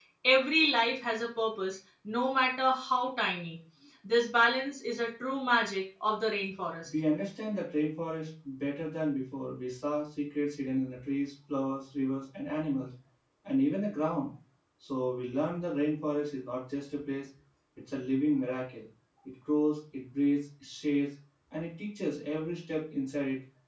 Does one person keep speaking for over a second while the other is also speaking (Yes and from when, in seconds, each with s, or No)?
No